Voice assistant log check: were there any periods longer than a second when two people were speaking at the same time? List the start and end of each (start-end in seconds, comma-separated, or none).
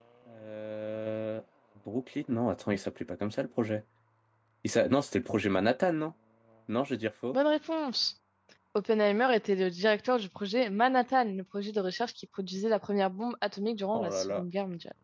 none